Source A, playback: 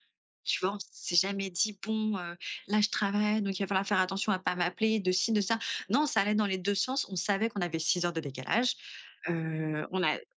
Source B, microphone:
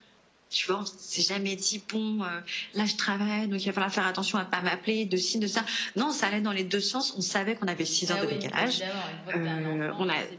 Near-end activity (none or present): present